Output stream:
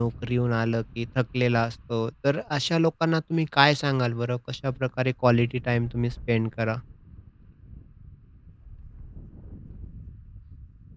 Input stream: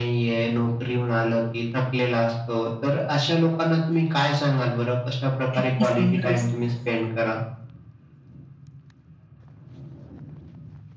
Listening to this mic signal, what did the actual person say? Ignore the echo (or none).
किती सुंदर दिसतं.